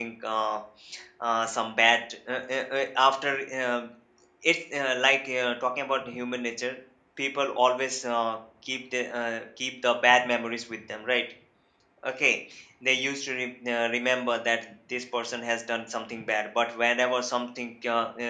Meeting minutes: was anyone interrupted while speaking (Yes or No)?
No